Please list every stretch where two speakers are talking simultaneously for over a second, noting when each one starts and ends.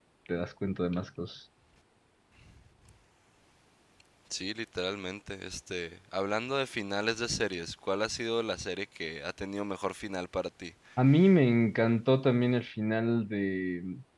none

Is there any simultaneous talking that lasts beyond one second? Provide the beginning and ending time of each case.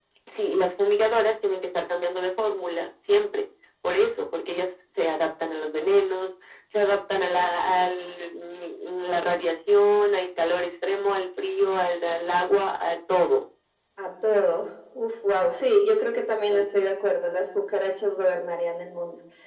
none

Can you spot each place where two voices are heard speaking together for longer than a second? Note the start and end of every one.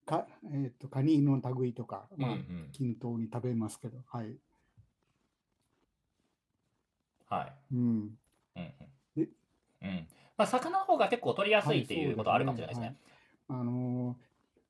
11.6-12.9

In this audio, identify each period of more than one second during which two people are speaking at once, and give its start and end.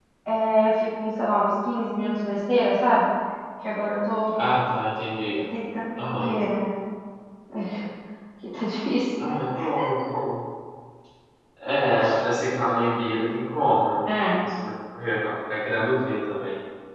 none

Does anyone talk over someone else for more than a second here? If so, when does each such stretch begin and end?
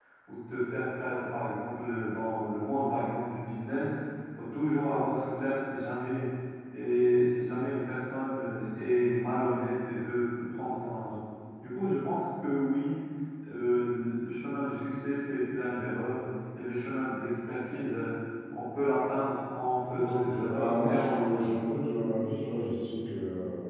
19.8-21.6

